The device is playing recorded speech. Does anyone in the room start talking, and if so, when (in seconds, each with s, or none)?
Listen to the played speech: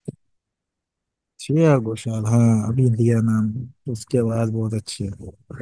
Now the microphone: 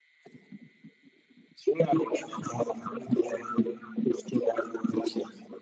none